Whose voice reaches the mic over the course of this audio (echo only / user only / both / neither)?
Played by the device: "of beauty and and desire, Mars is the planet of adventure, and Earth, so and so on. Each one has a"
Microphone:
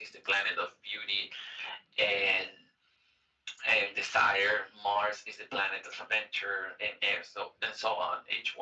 echo only